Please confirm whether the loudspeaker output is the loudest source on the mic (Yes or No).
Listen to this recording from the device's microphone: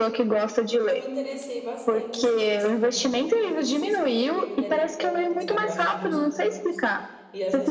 Yes